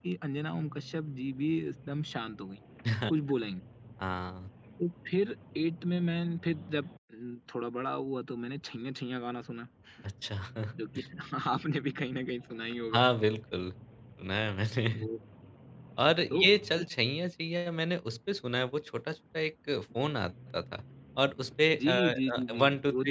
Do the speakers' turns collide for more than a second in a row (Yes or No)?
Yes